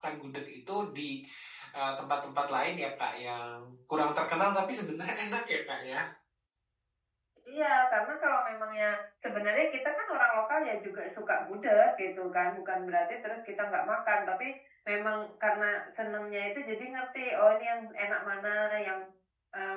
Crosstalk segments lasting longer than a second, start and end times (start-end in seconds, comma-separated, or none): none